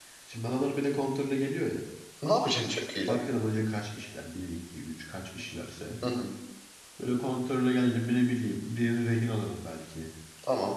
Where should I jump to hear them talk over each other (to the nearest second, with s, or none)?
none